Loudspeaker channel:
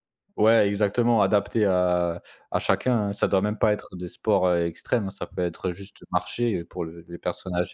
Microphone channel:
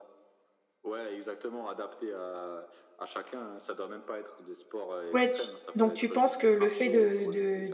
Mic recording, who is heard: both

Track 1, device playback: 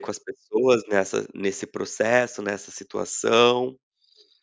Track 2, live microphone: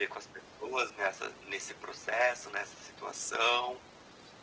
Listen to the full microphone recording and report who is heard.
echo only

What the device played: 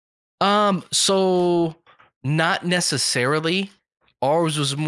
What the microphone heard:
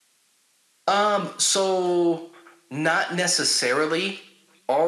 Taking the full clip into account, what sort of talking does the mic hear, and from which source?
echo only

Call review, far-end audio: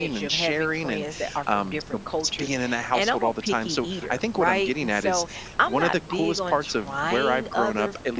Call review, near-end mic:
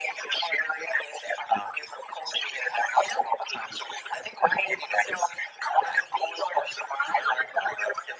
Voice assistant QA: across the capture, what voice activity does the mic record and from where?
echo only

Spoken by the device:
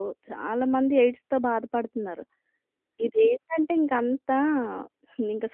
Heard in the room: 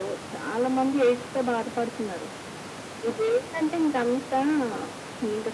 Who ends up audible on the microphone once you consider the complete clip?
echo only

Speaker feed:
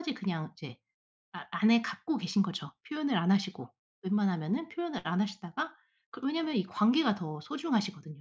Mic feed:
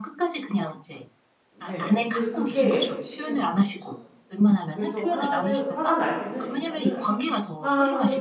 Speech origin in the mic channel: both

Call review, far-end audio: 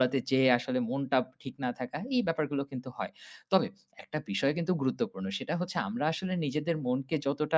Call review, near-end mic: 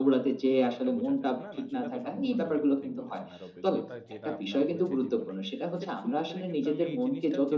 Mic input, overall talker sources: both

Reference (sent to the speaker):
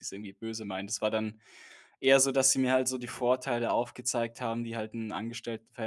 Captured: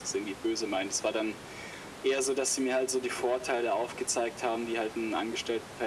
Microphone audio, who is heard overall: echo only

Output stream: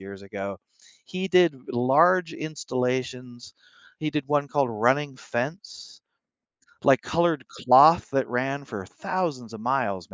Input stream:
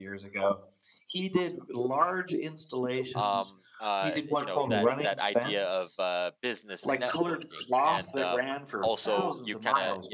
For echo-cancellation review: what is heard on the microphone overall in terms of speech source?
both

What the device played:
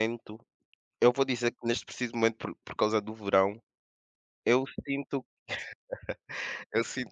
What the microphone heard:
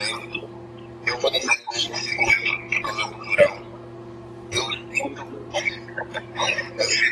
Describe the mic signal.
echo only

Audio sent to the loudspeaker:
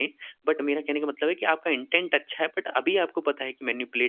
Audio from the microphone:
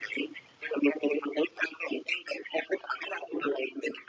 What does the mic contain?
echo only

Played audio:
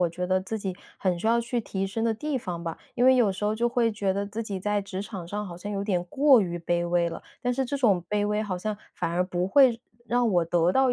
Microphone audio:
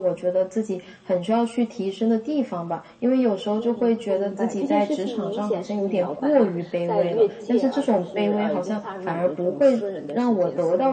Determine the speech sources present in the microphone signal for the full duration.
both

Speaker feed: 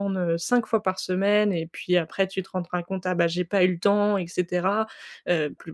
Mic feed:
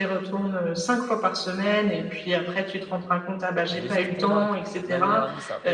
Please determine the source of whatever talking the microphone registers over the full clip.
both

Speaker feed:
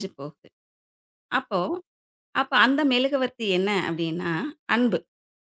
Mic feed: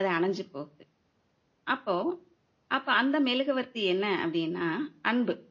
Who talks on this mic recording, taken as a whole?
echo only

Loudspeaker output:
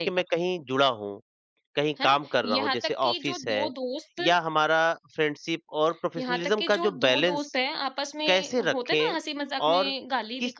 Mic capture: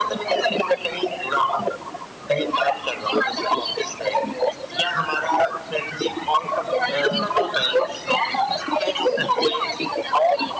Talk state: both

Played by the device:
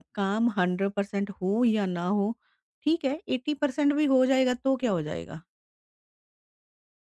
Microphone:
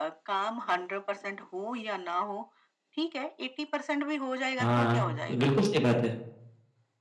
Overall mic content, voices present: both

